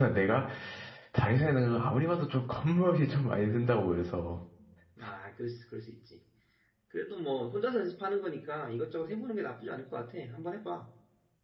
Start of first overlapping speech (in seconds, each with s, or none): none